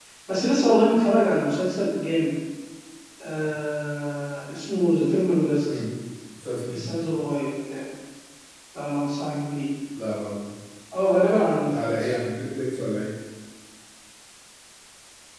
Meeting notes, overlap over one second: none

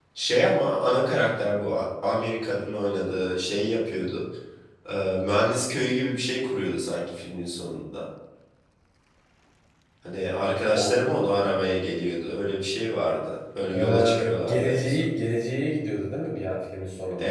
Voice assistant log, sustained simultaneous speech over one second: present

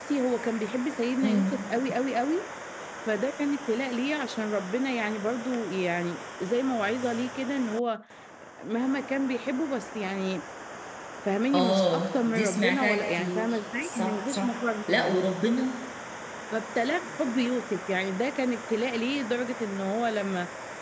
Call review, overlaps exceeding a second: present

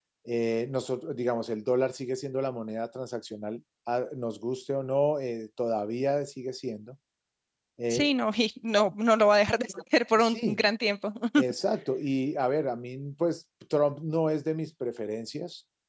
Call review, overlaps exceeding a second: none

